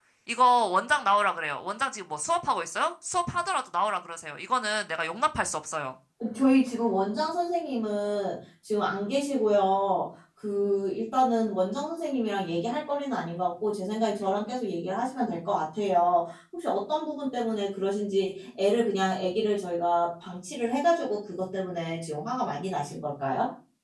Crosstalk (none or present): none